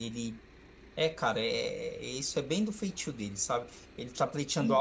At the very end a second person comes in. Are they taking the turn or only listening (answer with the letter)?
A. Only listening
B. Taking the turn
A